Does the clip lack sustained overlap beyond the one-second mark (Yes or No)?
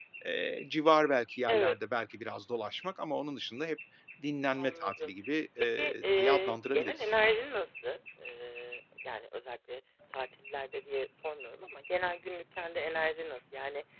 No